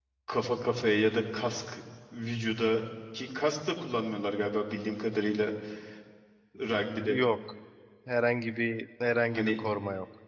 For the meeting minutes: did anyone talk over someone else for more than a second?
No

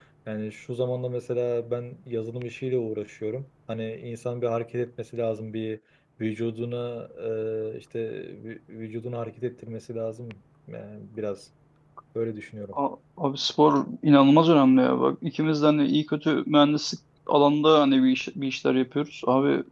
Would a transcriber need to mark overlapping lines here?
No

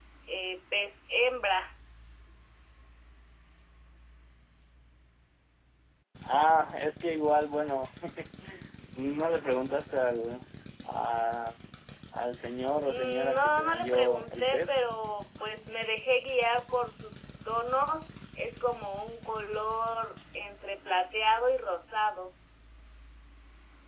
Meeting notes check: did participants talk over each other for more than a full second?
Yes, from 12.8 s

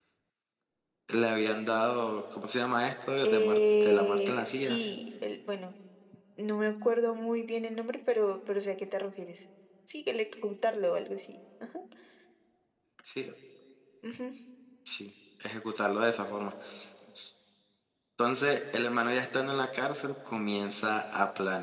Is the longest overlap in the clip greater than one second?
Yes, from 3.2 s

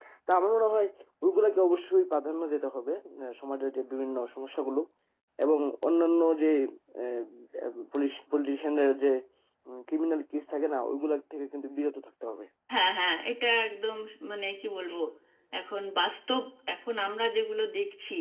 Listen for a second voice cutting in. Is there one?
No

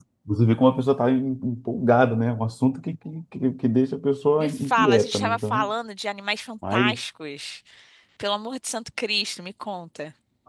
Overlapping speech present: Yes, from 4.4 s

